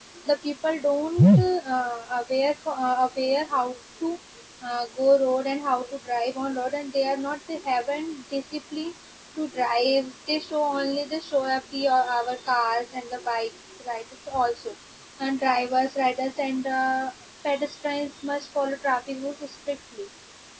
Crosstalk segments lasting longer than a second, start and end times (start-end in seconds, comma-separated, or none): none